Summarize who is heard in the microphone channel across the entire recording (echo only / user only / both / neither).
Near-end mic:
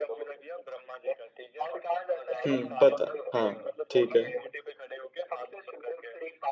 both